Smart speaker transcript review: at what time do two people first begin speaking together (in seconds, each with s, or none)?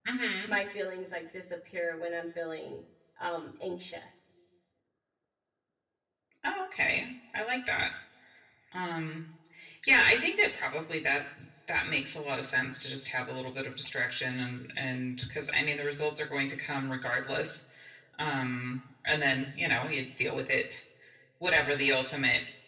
none